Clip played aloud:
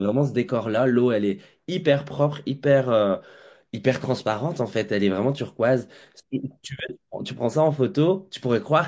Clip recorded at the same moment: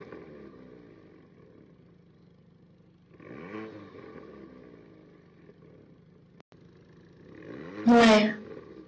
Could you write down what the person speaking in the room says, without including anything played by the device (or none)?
Ouais.